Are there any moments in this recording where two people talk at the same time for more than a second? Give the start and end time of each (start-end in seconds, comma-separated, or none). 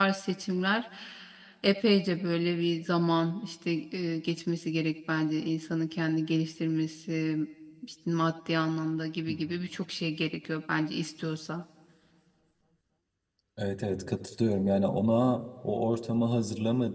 none